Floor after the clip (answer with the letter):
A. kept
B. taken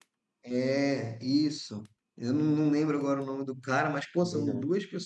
A